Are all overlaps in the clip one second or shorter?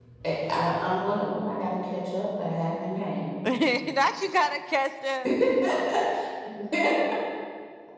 Yes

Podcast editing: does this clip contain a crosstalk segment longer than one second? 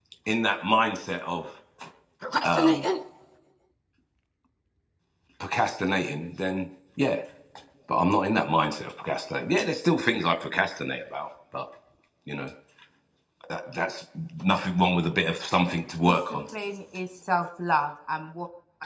No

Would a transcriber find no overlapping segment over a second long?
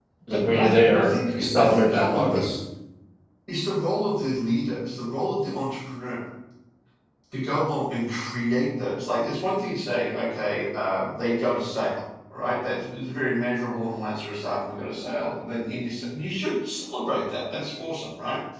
No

